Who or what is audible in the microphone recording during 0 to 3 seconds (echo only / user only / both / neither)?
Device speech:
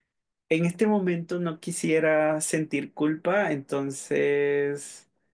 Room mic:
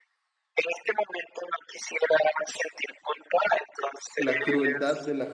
echo only